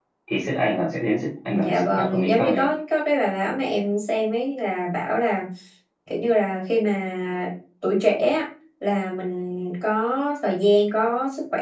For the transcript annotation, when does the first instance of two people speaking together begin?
1.5 s

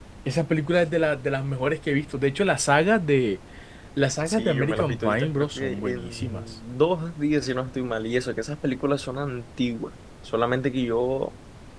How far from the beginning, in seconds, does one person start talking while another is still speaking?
4.3 s

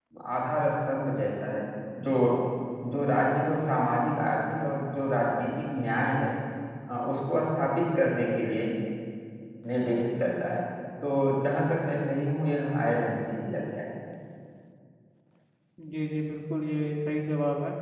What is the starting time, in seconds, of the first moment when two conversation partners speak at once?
none

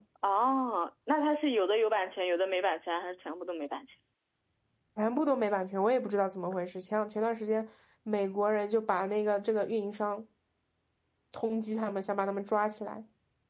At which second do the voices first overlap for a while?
none

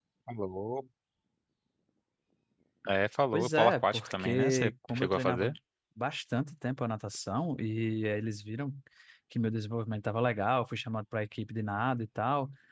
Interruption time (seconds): 3.3 s

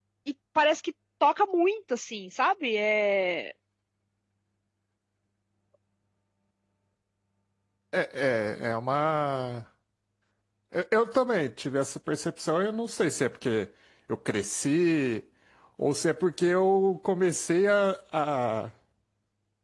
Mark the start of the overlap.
none

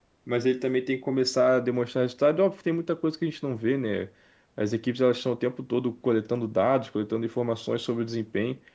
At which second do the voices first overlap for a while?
none

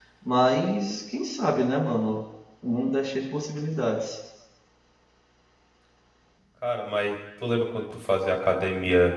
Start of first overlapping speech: none

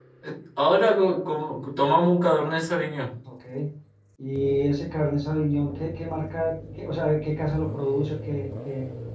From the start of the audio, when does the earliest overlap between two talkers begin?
none

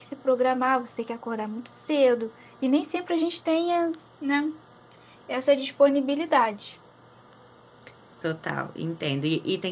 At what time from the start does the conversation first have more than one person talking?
none

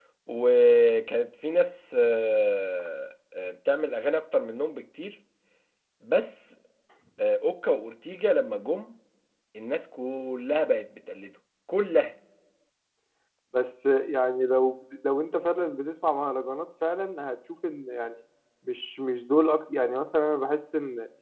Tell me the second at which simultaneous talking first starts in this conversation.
none

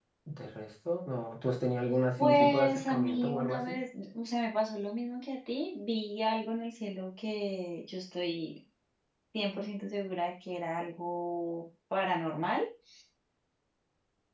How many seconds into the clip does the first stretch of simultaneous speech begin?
2.2 s

